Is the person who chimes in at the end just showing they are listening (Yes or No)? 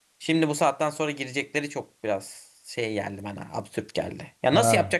Yes